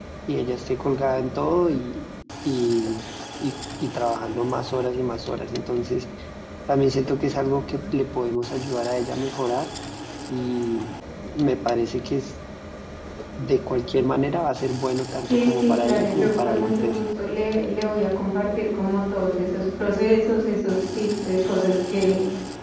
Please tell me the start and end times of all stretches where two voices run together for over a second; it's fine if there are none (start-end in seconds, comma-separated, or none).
15.3-17.0